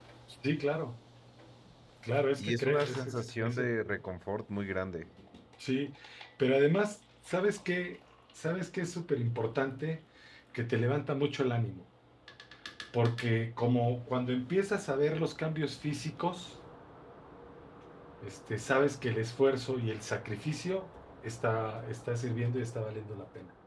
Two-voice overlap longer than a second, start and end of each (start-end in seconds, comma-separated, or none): 2.4-3.7